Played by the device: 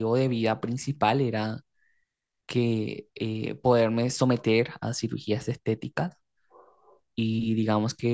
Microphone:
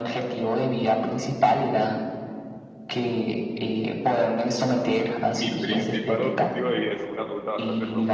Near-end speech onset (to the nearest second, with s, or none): 5 s